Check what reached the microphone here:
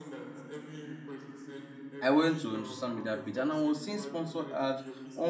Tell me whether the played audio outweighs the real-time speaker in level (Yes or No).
No